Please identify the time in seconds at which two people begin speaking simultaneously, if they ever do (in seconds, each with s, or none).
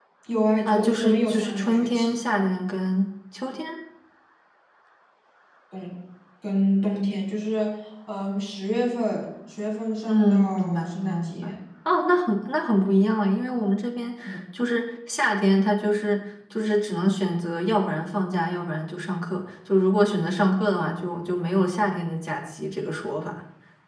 0.7 s